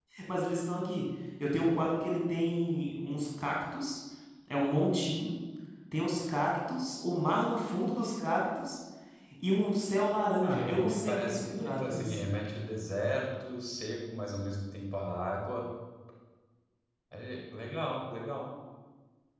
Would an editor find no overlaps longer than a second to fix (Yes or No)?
No